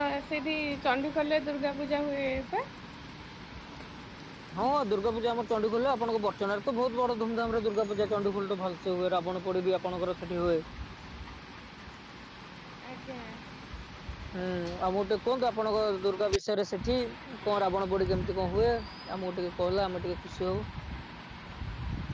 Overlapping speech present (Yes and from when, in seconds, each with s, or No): No